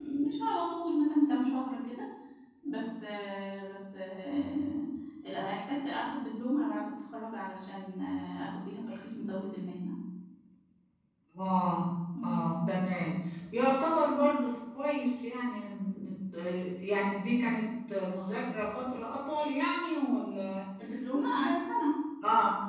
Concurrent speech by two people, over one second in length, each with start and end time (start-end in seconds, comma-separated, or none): none